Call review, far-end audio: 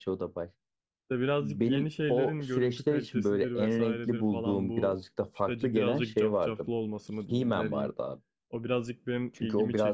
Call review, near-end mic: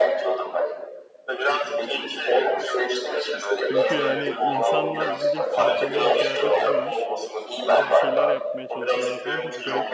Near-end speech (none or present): present